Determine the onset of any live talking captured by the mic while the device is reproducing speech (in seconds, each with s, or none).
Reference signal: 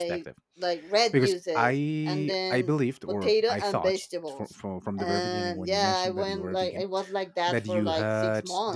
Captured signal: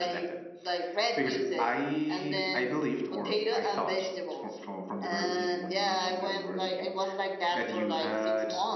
none